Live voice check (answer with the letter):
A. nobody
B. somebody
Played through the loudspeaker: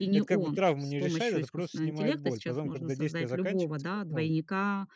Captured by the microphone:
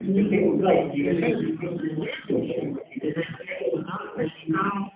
A